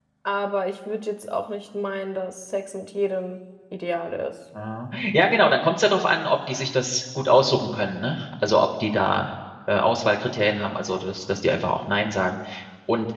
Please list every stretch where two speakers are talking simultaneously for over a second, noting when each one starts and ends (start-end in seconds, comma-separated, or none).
none